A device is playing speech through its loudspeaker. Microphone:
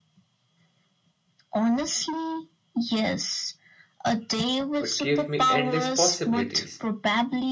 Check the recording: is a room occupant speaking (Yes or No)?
Yes